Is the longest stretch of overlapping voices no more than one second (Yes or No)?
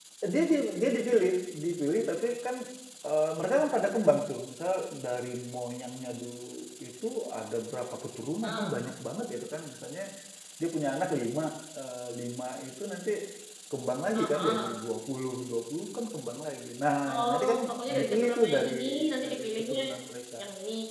No